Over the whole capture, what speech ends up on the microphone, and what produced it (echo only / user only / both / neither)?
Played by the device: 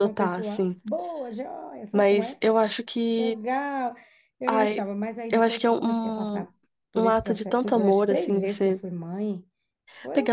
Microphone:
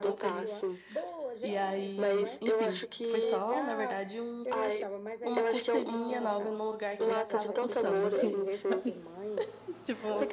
both